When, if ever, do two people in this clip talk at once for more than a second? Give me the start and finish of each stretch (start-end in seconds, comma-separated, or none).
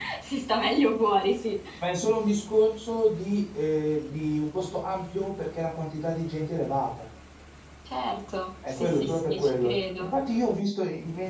8.7-10.1